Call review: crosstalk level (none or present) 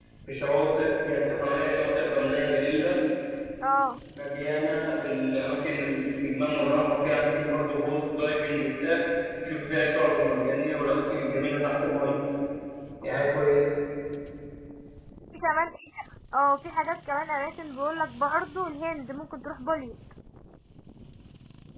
none